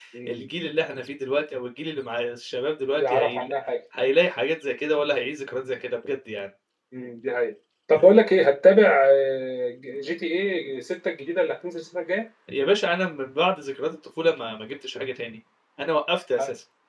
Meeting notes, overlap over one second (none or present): none